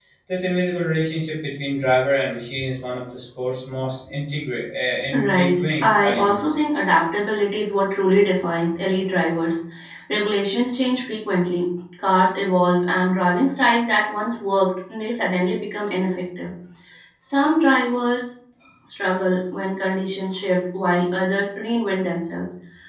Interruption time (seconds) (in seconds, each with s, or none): 5.1 s